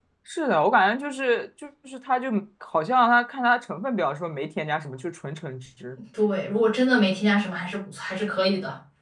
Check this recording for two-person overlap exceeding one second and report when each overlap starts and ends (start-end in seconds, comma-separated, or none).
none